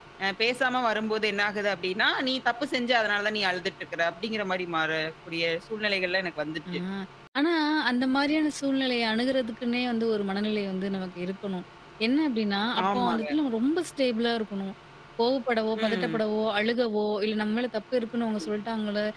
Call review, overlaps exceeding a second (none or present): none